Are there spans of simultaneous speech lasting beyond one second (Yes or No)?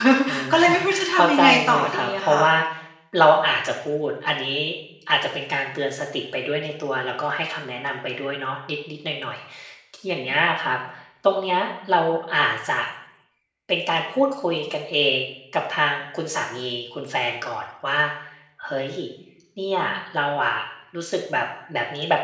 Yes